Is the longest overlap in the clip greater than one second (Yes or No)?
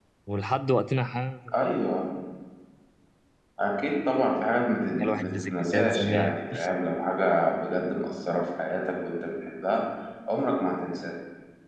Yes